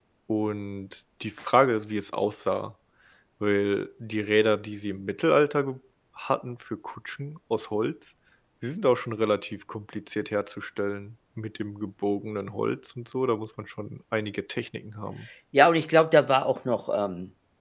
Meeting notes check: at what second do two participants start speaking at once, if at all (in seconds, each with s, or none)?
none